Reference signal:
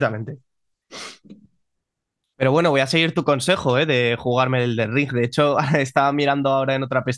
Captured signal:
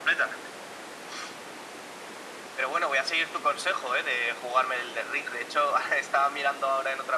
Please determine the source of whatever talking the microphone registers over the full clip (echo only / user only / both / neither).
echo only